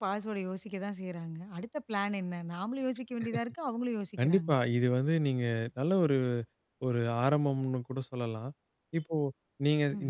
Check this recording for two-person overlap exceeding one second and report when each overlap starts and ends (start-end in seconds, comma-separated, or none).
none